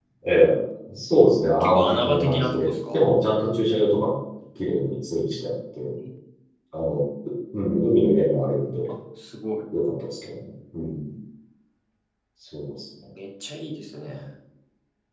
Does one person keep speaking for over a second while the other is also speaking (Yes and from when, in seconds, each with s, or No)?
Yes, from 1.6 s